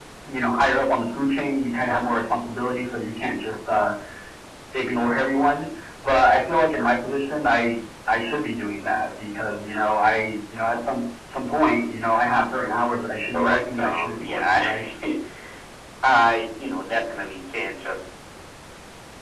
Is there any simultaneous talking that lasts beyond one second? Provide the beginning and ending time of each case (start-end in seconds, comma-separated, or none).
13.3-14.8